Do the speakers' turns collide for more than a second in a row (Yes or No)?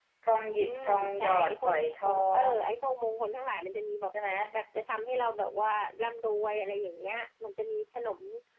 Yes